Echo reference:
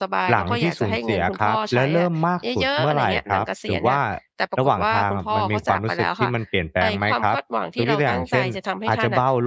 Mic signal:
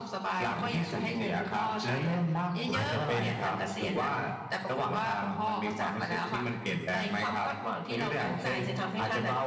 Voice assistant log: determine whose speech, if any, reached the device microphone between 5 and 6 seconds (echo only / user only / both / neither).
echo only